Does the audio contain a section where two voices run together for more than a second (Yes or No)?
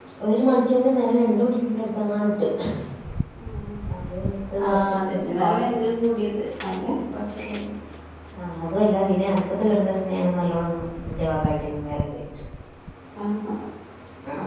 No